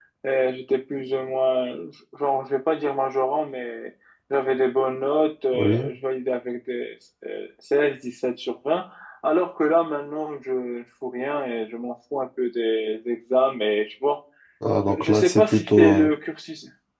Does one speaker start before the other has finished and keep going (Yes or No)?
Yes